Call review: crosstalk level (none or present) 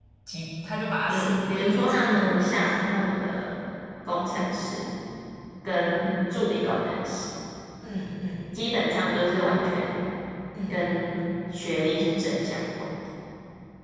present